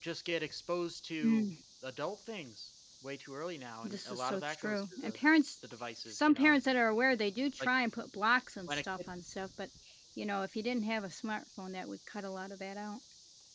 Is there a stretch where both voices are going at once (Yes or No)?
Yes